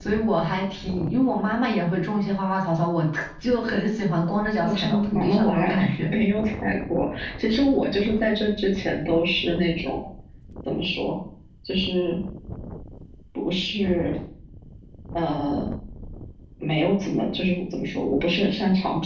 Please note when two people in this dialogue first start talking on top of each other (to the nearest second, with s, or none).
5 s